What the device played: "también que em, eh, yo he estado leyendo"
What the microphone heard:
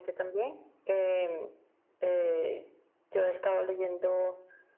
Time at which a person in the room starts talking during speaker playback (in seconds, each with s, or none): none